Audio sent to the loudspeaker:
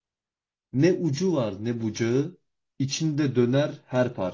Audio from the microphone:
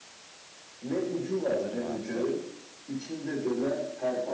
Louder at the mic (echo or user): echo